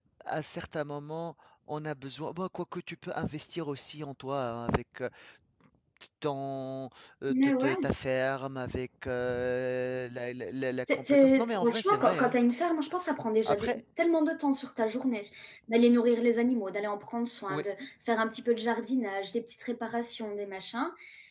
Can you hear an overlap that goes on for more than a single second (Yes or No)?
Yes